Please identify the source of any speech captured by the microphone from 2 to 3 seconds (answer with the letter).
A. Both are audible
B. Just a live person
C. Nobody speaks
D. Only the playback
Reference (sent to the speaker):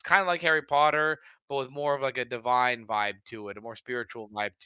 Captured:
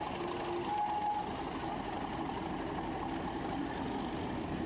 C